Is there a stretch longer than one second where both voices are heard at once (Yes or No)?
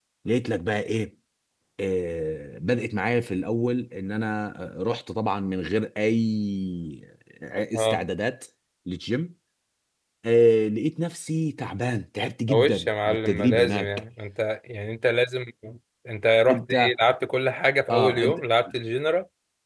Yes